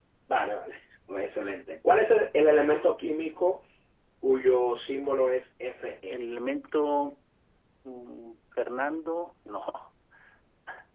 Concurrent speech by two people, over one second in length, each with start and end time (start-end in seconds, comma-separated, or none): none